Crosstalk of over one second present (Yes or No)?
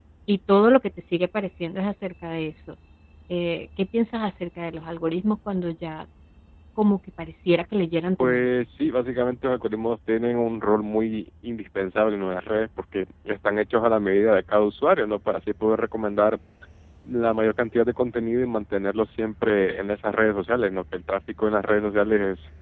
No